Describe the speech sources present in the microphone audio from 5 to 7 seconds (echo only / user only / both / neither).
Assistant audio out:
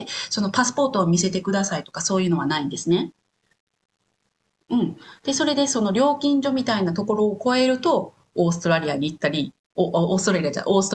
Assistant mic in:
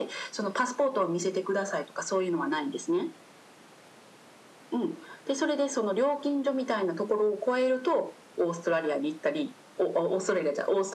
echo only